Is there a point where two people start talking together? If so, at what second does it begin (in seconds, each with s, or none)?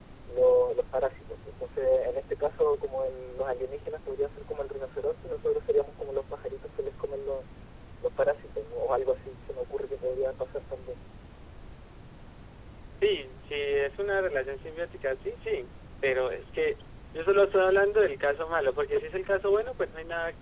none